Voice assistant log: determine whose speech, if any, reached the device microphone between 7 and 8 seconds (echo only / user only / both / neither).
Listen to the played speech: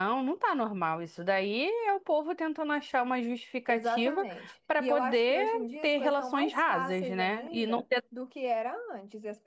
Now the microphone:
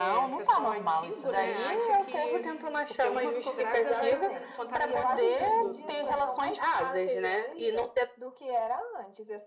echo only